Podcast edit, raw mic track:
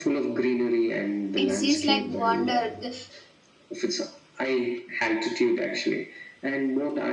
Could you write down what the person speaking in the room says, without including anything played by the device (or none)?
It seems like wonder. The-